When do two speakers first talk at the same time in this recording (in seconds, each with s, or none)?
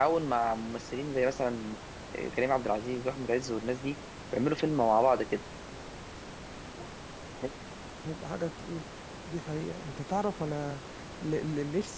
none